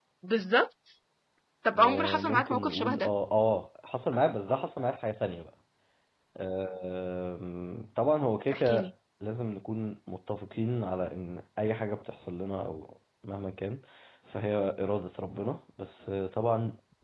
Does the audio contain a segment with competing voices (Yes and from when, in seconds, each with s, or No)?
Yes, from 1.8 s